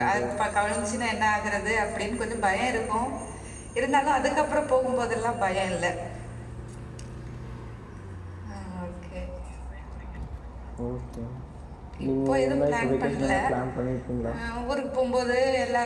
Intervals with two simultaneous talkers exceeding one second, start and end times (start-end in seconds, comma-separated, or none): 12.1-13.3